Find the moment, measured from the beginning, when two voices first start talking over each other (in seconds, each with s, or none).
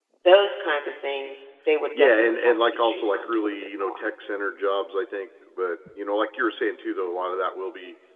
1.9 s